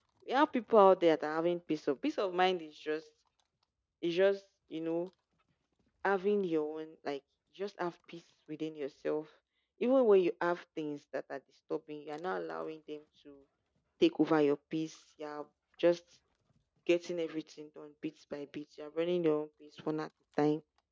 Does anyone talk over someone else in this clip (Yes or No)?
No